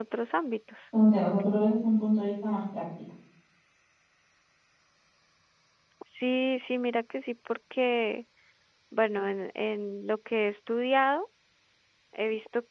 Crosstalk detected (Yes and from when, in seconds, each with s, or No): No